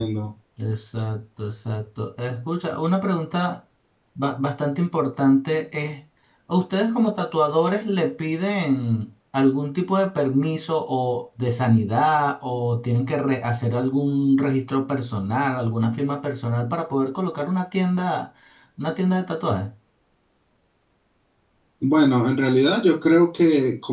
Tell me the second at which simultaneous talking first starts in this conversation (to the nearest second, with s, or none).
none